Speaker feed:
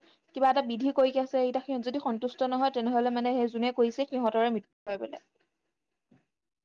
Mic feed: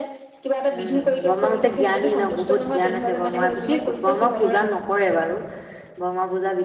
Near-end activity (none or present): present